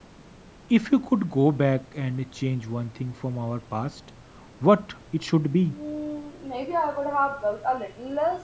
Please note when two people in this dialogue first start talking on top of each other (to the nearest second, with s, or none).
none